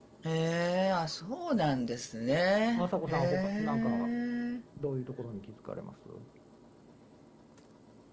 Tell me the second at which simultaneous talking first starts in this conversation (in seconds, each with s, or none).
2.8 s